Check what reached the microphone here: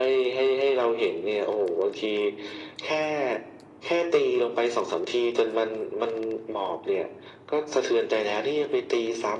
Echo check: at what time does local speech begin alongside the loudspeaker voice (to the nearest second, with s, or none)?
none